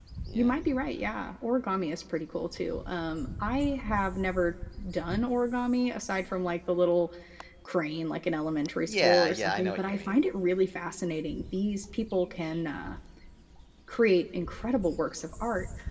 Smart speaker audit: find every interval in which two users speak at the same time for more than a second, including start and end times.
8.9-10.2

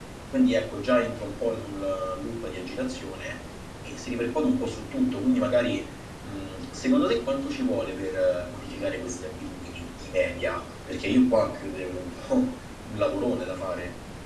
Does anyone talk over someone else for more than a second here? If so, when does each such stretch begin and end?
none

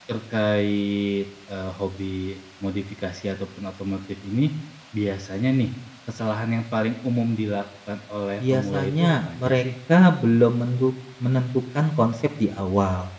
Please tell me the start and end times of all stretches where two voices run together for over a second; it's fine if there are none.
8.4-9.6

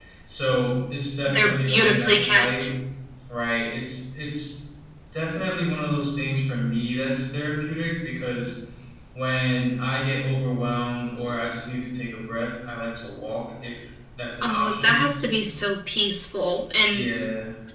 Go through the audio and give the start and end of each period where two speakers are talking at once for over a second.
1.3-2.6

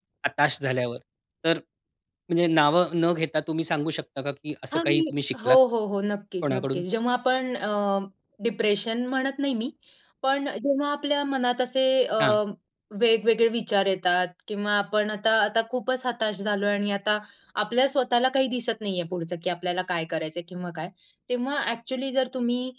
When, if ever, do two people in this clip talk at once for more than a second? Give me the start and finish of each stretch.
none

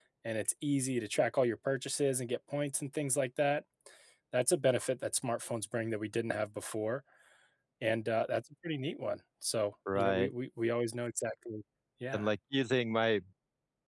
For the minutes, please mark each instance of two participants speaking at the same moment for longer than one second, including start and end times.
none

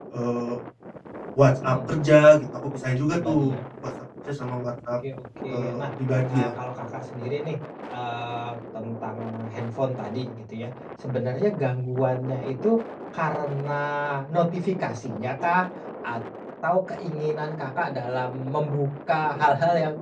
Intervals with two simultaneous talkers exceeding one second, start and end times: none

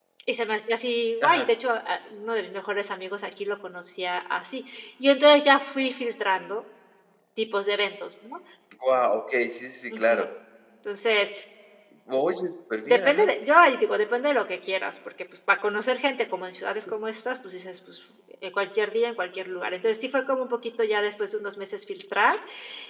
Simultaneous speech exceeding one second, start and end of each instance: none

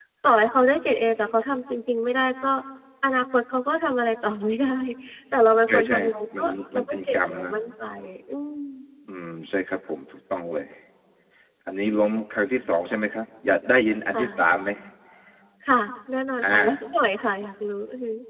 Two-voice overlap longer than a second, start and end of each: 5.7-7.5

